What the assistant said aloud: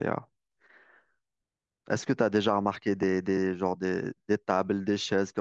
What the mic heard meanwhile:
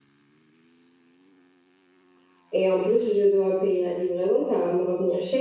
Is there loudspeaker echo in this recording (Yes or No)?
No